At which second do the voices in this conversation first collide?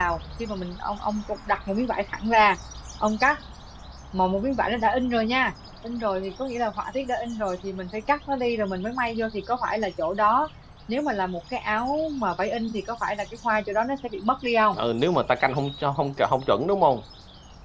none

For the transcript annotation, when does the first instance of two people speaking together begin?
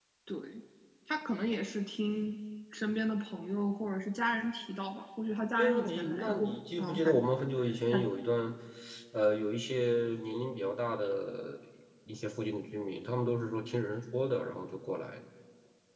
5.6 s

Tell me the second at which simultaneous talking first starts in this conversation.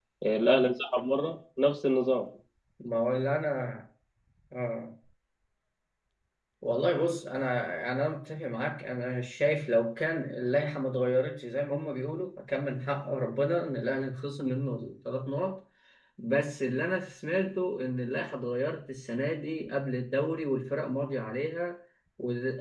none

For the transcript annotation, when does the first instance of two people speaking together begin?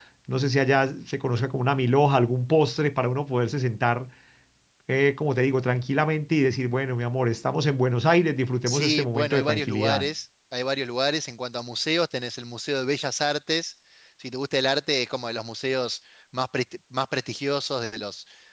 8.7 s

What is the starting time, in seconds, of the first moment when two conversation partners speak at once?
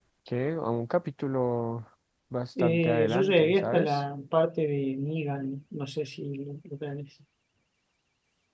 2.6 s

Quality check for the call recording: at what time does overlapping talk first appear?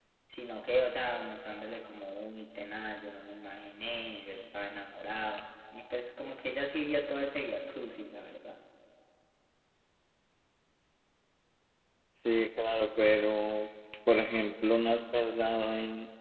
none

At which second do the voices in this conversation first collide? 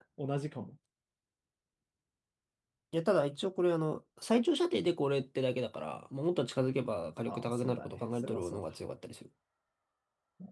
7.3 s

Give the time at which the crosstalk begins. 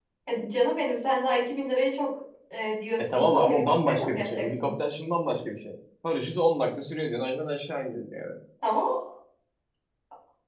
3.0 s

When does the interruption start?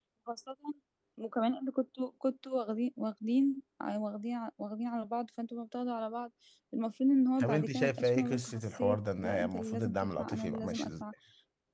7.4 s

